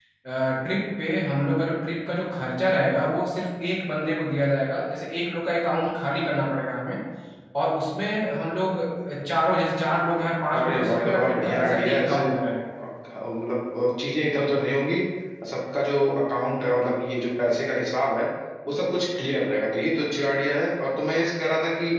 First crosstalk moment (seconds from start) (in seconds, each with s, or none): 10.5 s